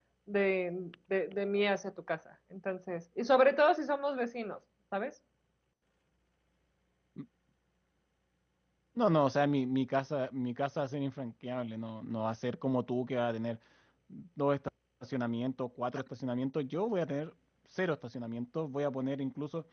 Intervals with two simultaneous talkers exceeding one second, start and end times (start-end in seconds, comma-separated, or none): none